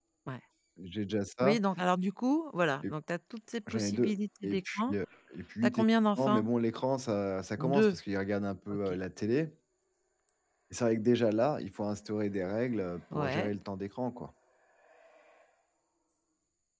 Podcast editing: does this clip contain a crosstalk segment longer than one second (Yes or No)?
Yes